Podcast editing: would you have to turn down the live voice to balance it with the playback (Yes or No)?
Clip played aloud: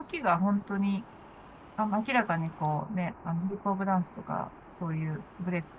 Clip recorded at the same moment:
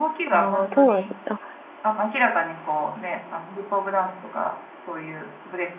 Yes